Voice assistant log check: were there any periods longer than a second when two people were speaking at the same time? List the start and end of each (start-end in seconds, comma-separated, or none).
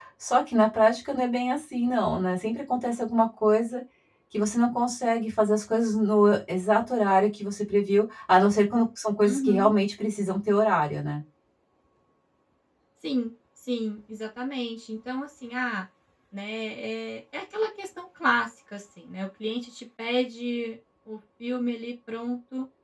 none